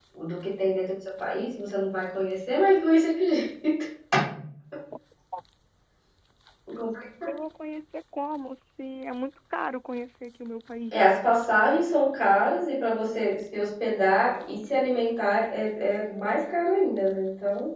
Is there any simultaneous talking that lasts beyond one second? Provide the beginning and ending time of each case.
none

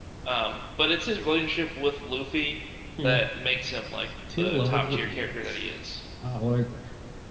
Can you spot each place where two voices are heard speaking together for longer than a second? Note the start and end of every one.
4.4-5.6

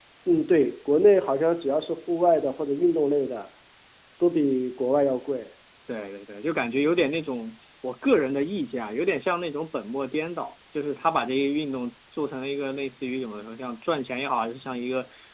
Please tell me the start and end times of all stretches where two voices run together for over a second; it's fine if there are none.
none

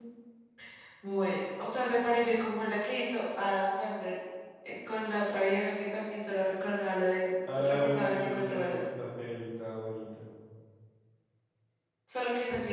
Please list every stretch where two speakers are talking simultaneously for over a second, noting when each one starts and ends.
7.5-8.8

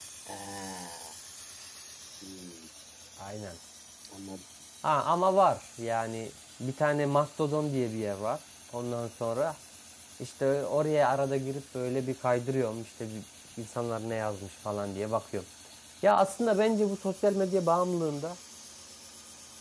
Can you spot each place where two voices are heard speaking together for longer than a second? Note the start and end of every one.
none

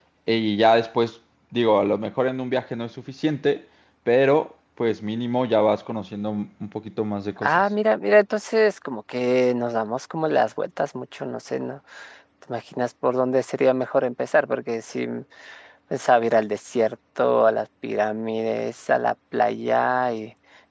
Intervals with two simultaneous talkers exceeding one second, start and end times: none

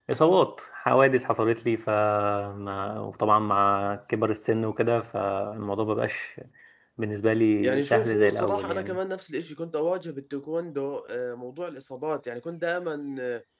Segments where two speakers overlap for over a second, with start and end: 7.6-9.0

